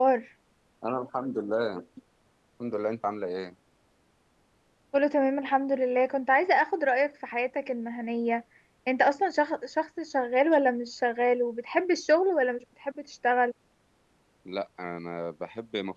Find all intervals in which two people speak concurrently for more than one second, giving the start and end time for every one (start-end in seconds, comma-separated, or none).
none